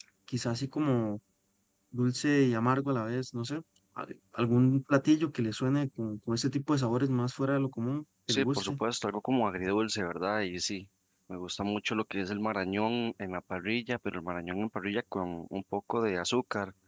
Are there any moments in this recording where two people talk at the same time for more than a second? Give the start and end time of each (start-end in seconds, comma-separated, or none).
none